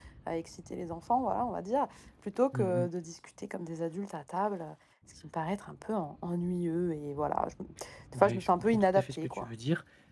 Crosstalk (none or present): present